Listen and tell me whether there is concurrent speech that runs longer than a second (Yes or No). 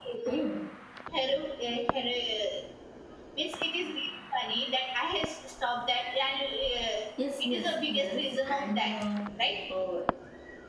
Yes